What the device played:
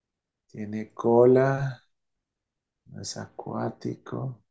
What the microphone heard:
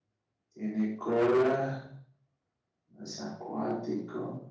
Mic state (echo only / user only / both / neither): echo only